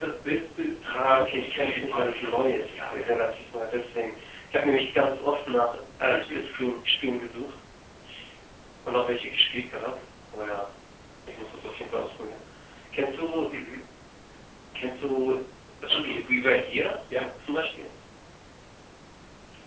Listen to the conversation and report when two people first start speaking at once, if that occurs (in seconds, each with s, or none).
0.9 s